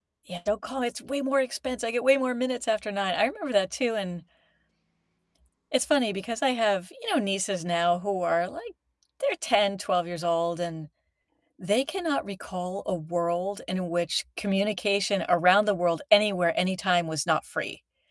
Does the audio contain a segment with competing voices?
No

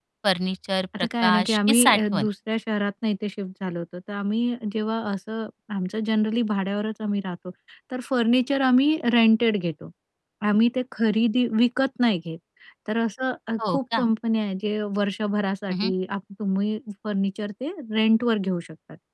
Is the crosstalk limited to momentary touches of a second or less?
No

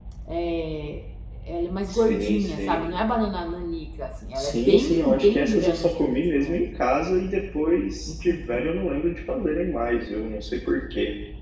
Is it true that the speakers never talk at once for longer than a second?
No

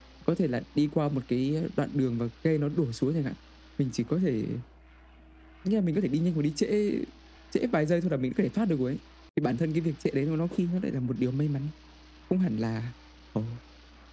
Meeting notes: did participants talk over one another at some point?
No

